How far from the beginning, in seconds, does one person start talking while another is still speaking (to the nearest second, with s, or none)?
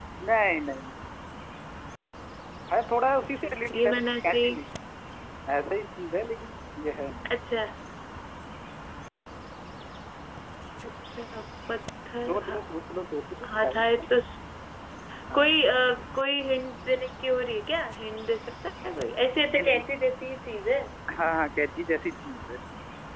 3 s